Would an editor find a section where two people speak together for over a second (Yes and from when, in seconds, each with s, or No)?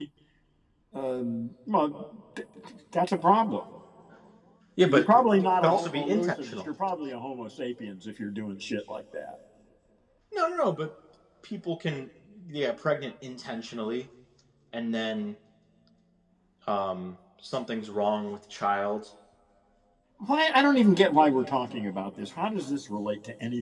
Yes, from 4.8 s